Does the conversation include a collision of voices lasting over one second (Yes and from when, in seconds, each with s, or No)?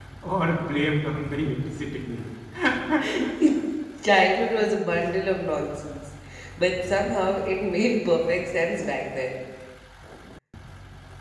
No